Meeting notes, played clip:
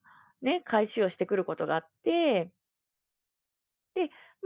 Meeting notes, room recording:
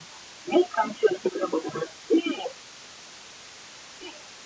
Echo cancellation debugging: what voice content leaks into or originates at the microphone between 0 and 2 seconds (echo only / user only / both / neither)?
echo only